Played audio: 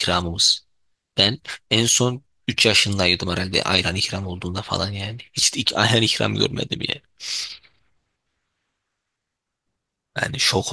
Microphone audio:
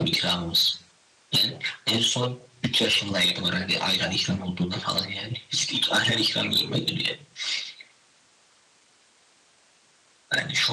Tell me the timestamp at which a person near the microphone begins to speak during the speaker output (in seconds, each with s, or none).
none